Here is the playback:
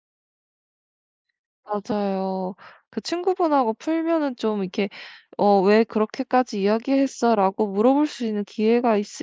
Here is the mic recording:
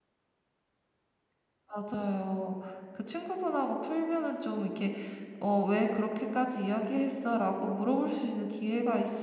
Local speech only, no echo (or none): none